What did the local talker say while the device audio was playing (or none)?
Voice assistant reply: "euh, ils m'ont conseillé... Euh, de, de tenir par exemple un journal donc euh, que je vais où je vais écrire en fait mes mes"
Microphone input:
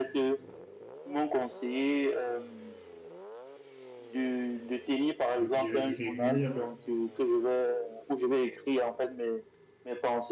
je dirais, irrégulière,